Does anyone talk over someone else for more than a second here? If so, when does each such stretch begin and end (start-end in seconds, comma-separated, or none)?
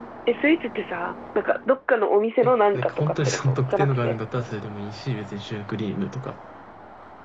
2.4-4.2